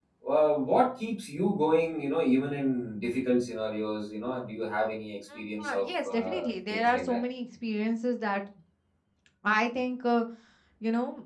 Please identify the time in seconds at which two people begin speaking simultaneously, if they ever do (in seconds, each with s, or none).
5.6 s